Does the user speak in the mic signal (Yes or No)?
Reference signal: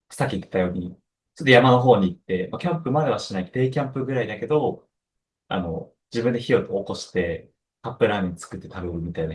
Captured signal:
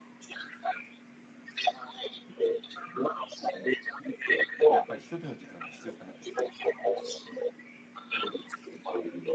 Yes